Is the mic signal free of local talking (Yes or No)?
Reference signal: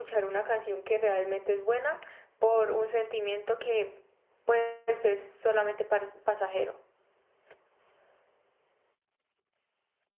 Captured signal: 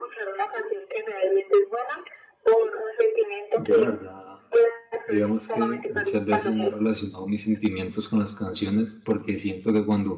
No